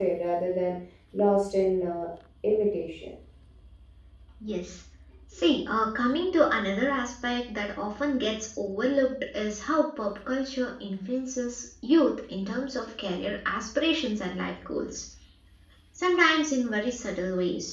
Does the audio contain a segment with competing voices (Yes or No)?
No